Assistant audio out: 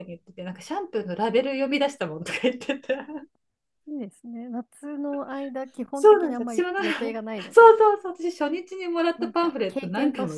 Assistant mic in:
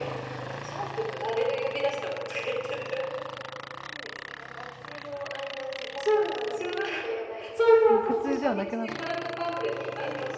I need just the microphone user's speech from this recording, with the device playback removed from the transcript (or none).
もう苦痛ではなくなっ